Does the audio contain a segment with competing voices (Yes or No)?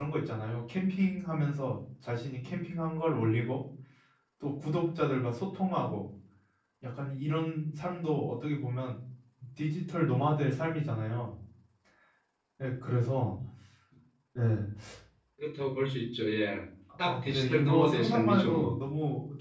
Yes